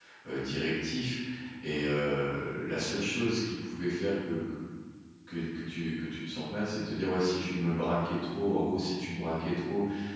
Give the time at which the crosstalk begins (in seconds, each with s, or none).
none